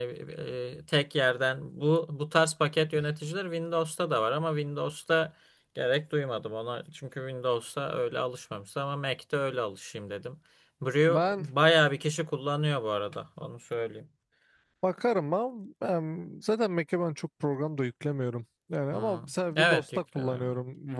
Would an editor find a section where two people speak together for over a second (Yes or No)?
Yes